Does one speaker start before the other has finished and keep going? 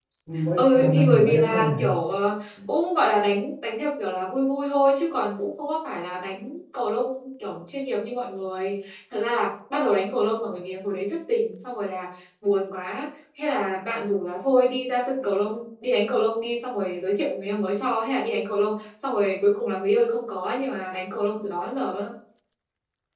Yes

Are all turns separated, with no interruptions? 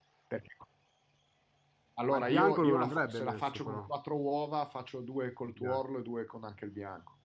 No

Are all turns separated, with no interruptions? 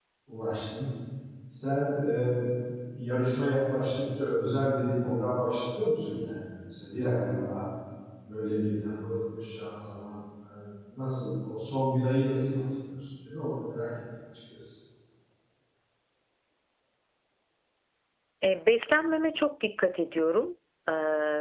Yes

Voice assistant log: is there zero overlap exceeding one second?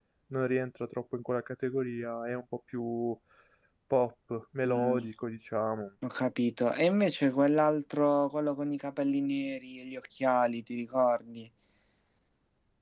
Yes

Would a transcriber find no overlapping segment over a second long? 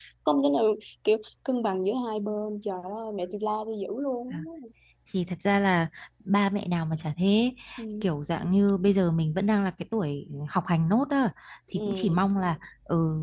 Yes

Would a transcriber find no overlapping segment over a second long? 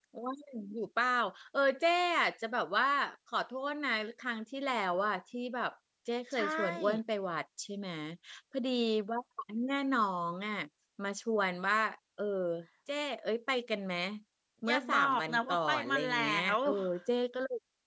No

